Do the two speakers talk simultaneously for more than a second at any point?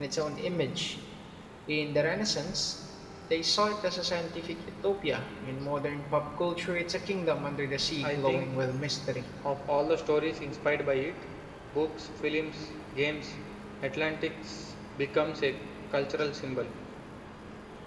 No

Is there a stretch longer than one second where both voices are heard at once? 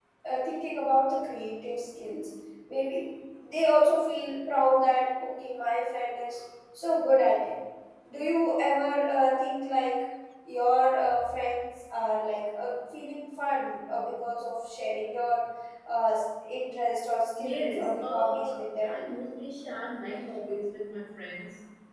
Yes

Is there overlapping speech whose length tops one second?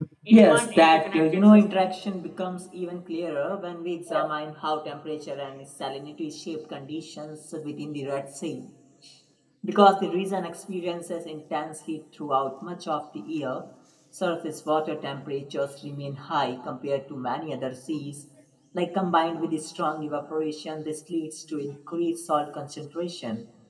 Yes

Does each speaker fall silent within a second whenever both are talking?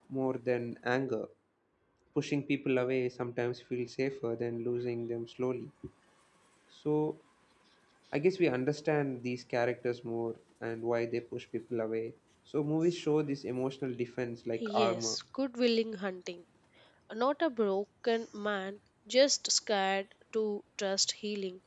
Yes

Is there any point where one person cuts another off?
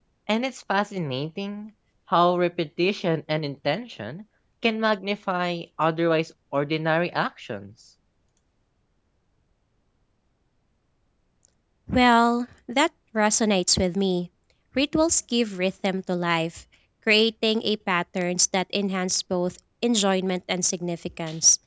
No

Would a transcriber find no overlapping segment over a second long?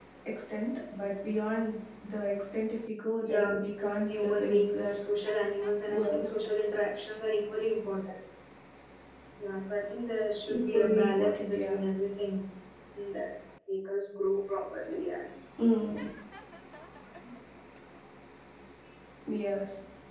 No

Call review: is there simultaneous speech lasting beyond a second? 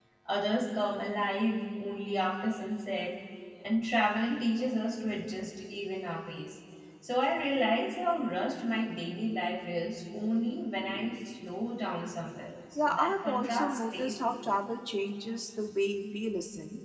Yes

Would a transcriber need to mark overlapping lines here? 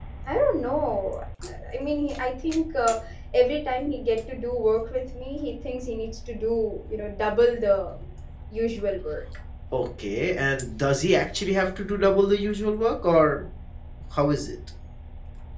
No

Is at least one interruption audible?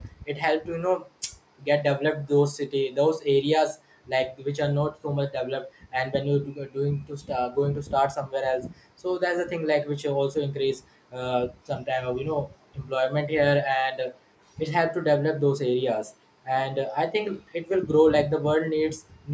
No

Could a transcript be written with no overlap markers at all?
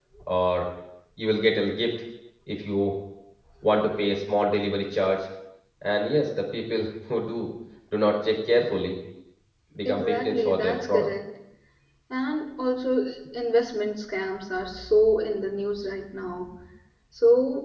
No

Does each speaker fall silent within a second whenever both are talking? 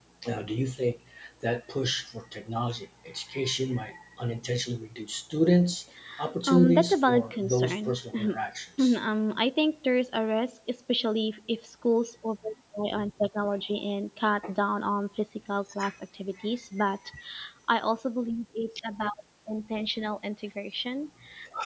No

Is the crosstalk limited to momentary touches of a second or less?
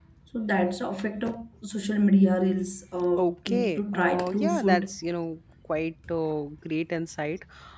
No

